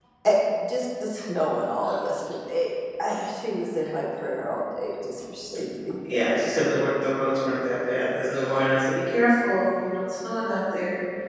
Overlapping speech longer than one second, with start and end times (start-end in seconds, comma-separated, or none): none